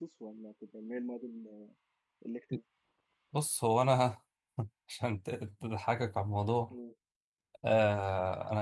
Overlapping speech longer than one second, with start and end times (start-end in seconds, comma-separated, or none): none